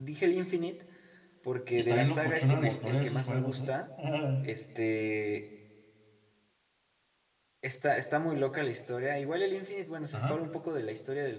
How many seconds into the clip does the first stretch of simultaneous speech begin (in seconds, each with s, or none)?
1.7 s